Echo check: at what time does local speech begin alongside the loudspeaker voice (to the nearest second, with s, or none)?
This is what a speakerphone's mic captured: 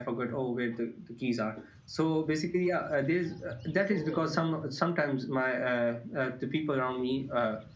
4 s